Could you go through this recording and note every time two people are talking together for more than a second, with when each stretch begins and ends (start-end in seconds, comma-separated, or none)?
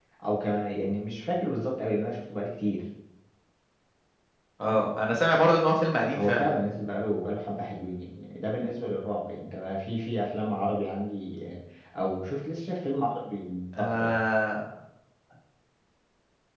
none